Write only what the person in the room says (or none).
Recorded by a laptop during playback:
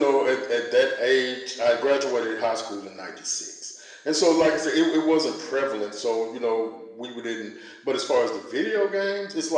none